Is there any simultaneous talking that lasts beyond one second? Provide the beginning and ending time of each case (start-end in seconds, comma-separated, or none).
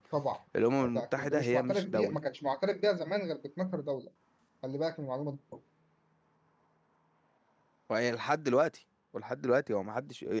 0.9-2.2